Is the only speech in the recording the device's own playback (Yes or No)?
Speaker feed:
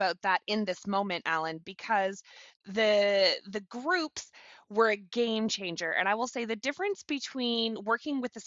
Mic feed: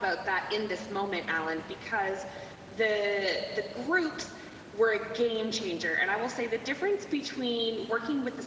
Yes